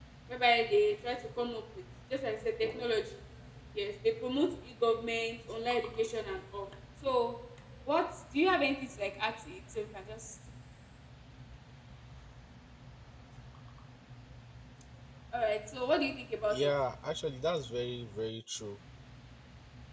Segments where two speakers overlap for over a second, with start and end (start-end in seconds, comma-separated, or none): none